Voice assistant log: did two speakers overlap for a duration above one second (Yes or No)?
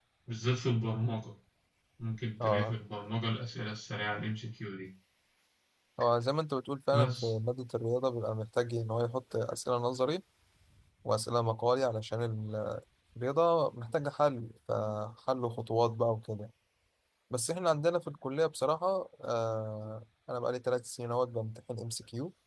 No